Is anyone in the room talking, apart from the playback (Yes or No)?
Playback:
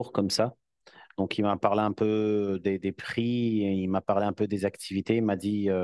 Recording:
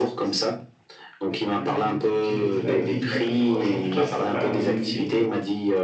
Yes